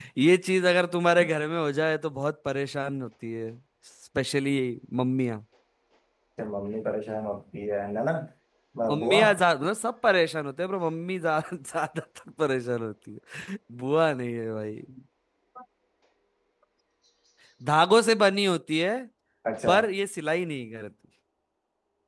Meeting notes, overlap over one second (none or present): none